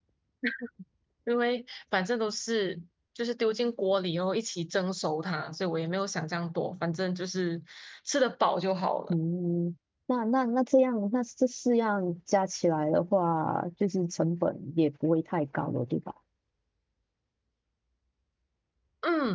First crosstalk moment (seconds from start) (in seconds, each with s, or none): none